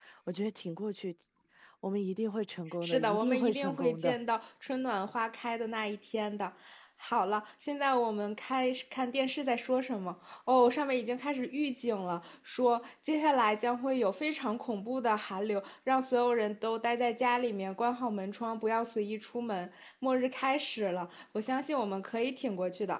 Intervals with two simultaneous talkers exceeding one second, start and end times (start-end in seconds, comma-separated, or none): 2.8-4.2